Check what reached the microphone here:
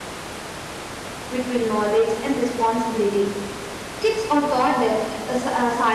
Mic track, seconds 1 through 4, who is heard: user only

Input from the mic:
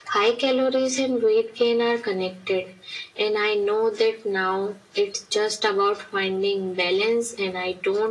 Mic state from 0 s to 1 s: echo only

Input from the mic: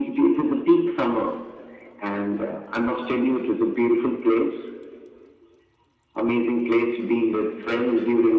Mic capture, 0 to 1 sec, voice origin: echo only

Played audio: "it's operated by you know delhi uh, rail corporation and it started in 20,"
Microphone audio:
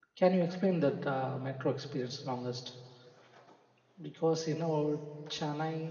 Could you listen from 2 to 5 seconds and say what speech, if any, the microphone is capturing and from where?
user only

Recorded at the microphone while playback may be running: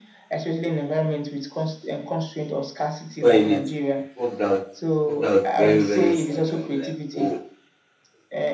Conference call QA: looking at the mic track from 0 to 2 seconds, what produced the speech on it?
echo only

